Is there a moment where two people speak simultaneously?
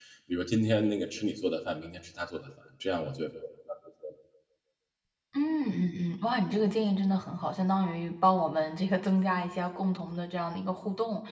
No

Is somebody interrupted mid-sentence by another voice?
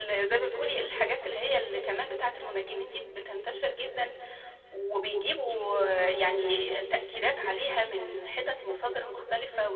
No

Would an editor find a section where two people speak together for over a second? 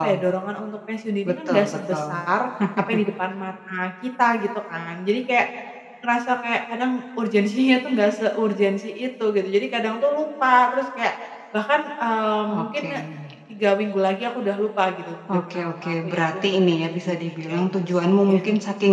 Yes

